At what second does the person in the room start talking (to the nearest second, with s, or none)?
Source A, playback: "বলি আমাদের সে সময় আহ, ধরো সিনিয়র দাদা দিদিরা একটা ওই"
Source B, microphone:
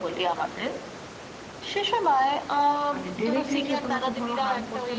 3 s